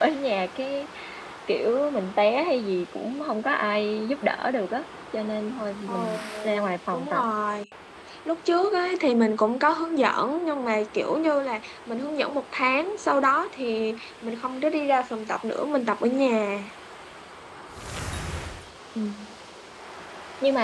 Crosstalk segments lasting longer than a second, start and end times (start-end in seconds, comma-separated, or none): 5.9-7.2